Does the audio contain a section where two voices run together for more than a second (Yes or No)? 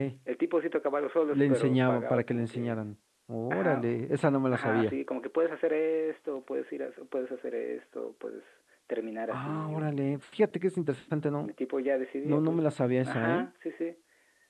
Yes